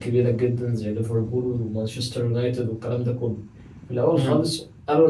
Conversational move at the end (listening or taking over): listening